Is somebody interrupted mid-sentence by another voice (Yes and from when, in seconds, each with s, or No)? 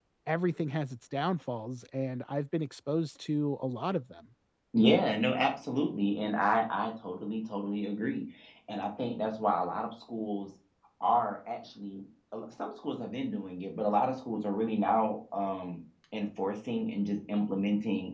No